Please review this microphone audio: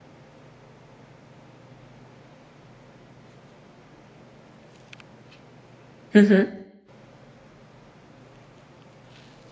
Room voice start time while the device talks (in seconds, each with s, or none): 6.1 s